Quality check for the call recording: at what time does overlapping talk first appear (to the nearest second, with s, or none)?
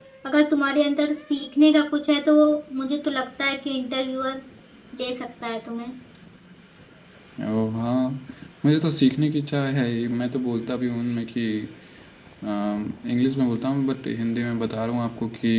none